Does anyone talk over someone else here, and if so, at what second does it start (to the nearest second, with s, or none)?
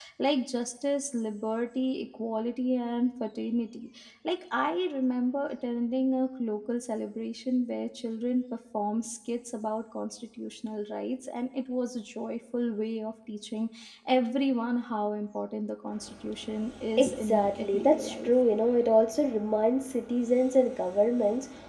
17 s